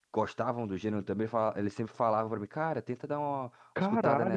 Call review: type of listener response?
taking over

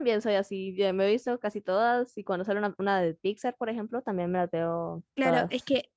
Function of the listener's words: taking over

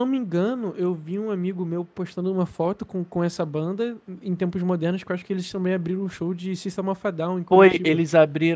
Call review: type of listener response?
taking over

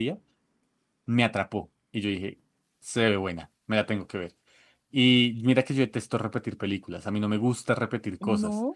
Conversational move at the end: listening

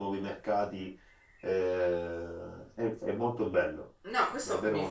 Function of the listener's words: taking over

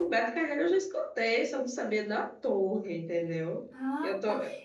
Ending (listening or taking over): taking over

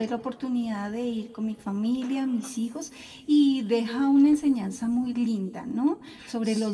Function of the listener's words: listening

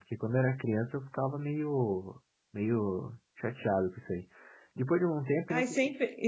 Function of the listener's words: taking over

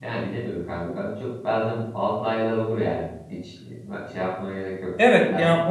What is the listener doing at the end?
taking over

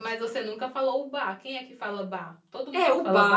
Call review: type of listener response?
taking over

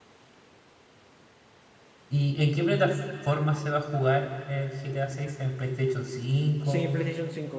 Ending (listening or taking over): taking over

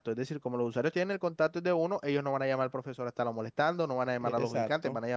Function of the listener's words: taking over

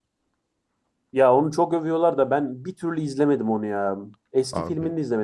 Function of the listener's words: listening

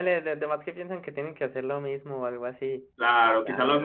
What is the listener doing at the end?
taking over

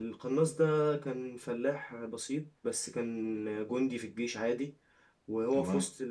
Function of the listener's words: listening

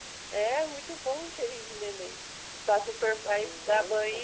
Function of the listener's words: listening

